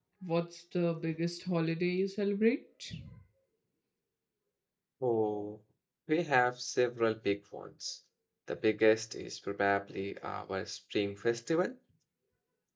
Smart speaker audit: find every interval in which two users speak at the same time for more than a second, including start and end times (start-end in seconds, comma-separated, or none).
none